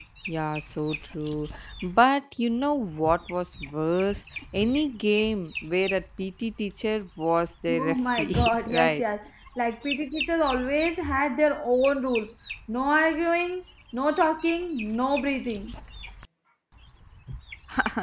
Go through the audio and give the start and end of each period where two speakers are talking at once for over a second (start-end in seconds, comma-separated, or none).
7.7-9.0